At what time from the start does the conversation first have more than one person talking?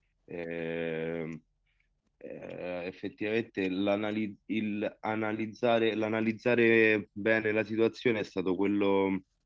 none

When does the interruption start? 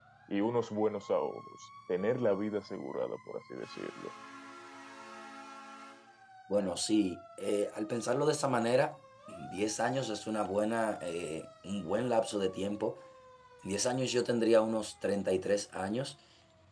none

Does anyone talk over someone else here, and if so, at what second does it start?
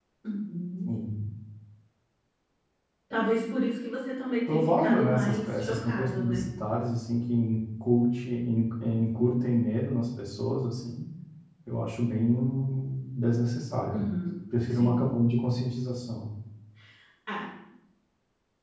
4.5 s

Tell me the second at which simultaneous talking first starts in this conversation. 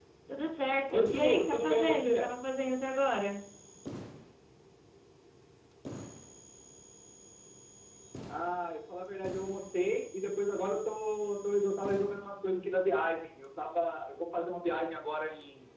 0.9 s

